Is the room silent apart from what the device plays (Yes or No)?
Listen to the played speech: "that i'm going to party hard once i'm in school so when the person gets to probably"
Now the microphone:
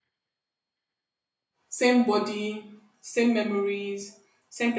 No